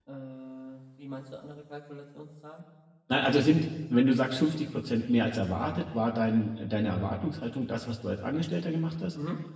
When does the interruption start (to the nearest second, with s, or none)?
none